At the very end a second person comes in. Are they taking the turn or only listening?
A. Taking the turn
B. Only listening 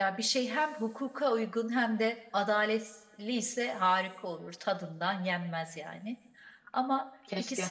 B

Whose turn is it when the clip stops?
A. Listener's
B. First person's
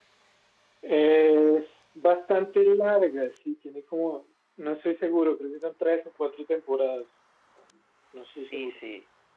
A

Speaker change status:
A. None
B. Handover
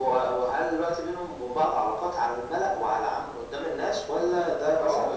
B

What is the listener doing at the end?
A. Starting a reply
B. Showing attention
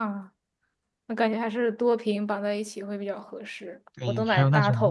A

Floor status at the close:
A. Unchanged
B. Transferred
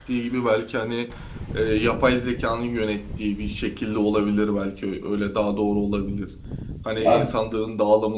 A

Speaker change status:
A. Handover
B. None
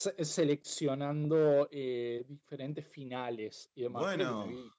B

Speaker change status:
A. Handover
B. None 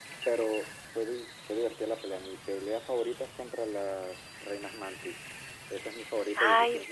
A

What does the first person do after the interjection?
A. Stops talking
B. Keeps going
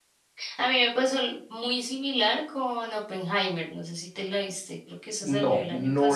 A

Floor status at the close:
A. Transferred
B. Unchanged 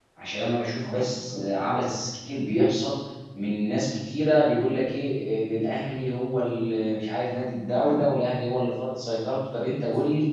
B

